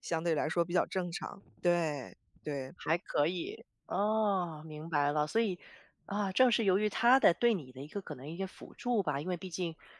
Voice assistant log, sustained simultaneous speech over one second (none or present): none